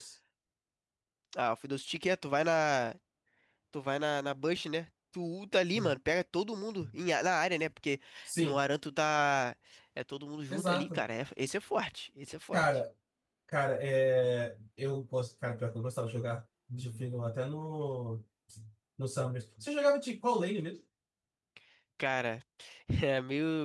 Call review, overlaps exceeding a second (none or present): none